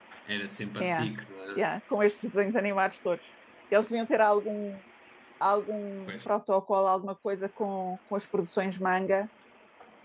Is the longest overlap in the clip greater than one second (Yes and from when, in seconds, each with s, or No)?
No